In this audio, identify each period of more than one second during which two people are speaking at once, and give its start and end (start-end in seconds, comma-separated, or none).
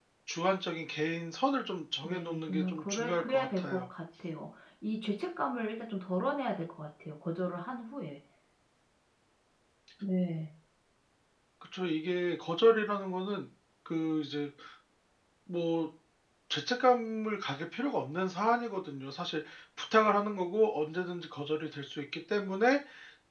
2.0-3.9